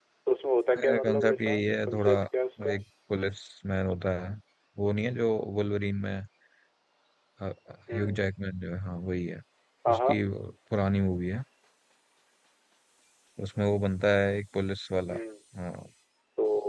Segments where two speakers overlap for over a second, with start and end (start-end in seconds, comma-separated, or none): 0.8-2.1